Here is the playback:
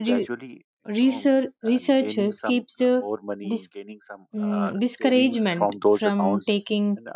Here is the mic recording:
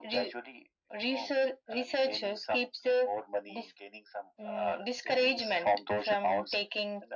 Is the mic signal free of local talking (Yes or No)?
Yes